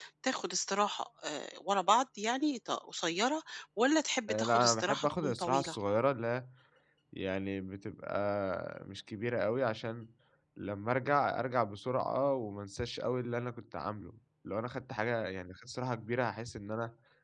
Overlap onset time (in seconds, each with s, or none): 4.3 s